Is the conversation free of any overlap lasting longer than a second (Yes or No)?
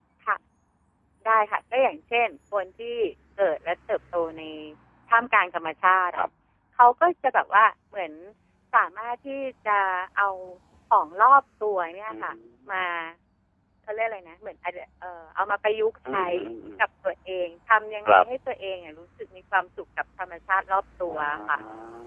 Yes